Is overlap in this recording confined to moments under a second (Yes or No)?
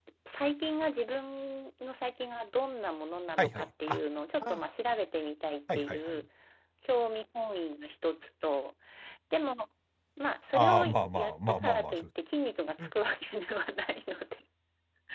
No